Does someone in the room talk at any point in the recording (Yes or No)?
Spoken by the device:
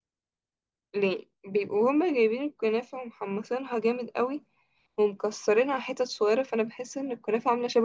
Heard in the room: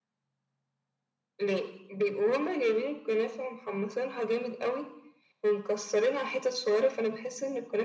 No